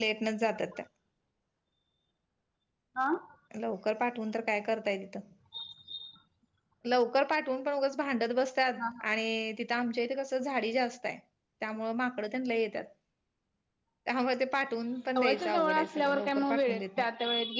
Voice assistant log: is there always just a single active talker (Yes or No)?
No